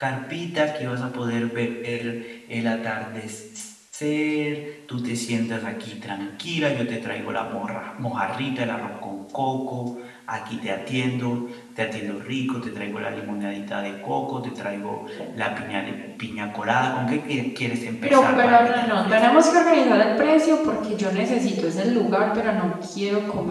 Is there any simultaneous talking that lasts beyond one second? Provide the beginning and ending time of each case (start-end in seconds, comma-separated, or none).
18.0-19.2